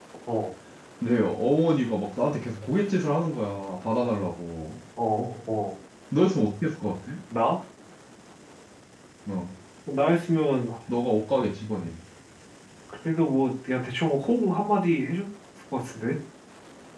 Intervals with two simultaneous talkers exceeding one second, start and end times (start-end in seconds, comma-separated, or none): none